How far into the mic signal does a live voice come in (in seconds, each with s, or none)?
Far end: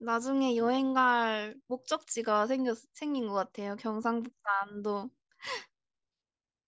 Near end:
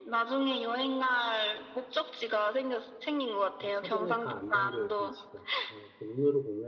3.6 s